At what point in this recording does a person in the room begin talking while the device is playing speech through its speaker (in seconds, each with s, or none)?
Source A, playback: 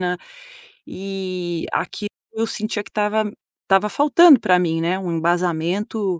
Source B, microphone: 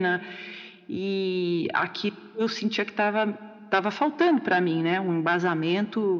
none